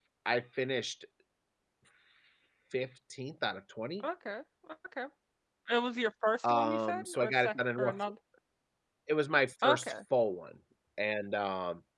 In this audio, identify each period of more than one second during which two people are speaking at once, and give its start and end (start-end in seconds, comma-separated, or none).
6.4-8.0